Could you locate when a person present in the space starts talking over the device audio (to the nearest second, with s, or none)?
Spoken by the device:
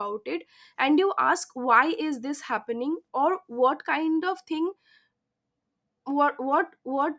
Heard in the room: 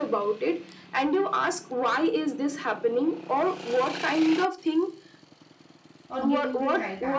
6 s